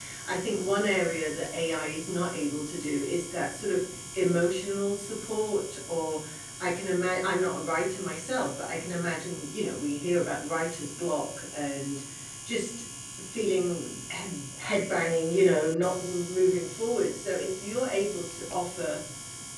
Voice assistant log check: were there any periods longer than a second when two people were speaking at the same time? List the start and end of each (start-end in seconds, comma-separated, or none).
none